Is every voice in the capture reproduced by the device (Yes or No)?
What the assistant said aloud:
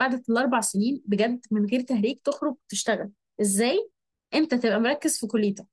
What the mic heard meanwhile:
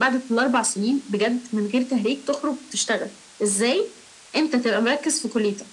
Yes